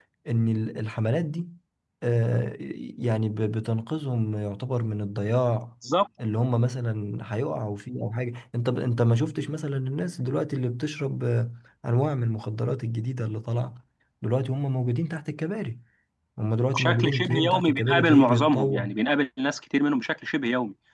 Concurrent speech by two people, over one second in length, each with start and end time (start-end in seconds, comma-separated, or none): 16.8-18.8